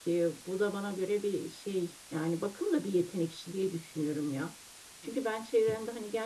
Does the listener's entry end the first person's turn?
No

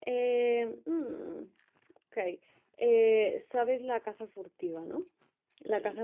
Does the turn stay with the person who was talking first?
Yes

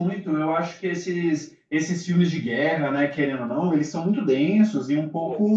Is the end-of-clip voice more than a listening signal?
No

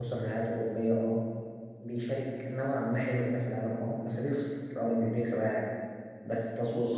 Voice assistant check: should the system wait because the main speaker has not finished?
Yes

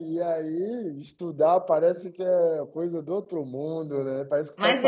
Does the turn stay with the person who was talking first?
No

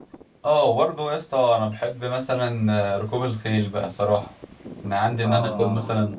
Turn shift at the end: No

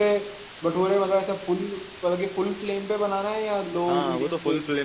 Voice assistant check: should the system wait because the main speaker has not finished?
No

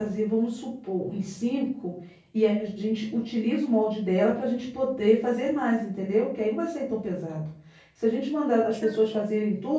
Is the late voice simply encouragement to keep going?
Yes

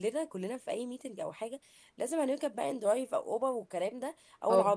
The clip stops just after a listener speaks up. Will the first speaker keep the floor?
Yes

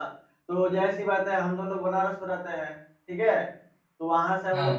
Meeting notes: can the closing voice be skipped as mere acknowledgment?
Yes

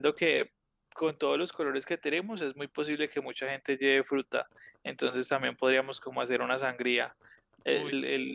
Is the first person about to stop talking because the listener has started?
No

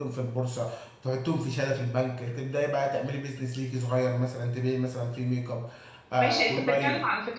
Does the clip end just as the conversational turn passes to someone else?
Yes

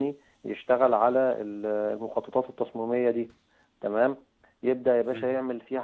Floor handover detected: No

